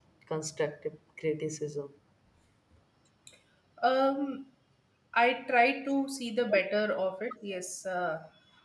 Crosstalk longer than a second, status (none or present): none